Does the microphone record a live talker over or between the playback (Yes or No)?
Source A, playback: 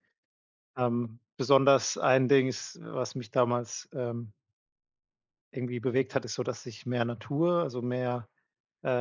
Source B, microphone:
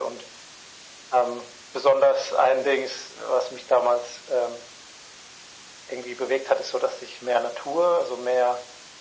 No